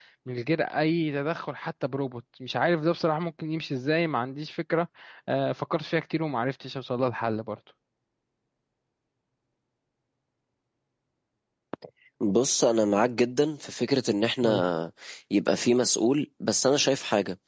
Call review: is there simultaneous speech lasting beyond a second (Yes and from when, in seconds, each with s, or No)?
No